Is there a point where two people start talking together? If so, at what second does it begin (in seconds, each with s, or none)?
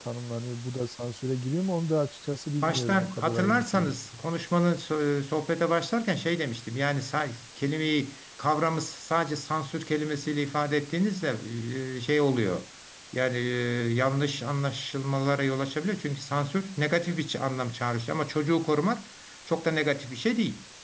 2.6 s